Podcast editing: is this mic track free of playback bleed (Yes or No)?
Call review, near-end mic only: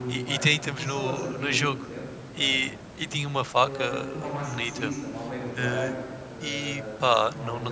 No